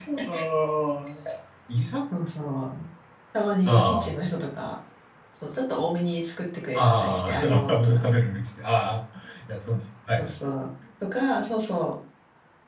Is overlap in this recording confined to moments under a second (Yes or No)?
No